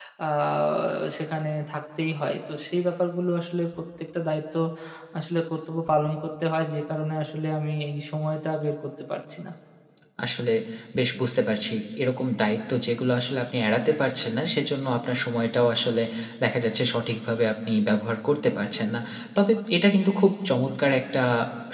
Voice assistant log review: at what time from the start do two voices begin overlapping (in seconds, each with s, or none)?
none